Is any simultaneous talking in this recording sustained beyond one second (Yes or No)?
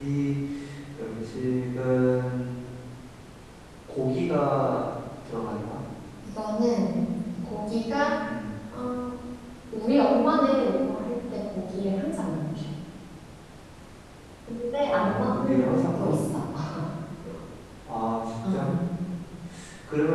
Yes